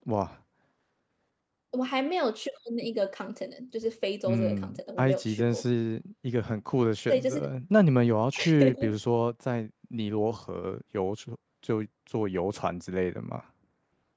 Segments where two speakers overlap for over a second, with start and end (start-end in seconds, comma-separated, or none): 4.2-5.6